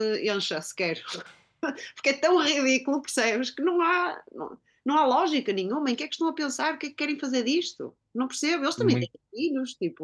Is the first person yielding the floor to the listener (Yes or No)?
No